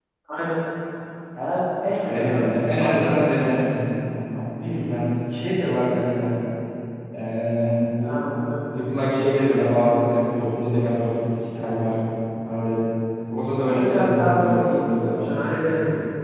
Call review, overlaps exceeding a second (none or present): present